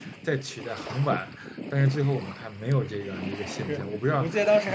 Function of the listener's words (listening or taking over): taking over